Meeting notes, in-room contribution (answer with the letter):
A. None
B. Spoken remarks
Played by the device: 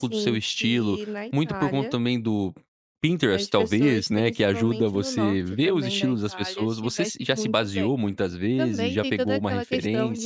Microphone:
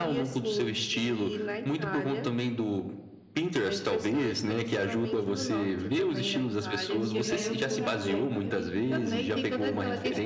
B